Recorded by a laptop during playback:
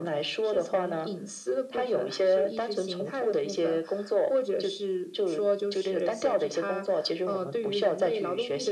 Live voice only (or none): none